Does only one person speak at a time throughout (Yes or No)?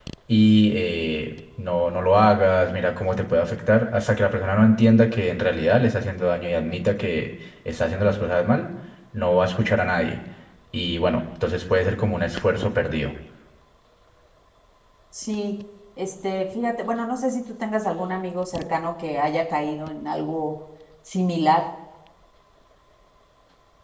Yes